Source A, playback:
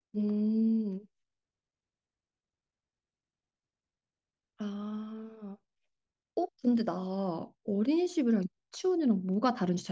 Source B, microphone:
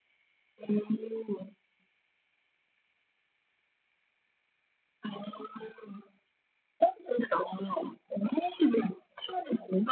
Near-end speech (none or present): none